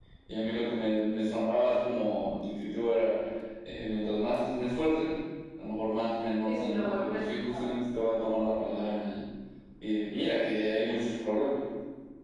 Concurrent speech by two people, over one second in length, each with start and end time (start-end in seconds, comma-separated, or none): 6.5-7.7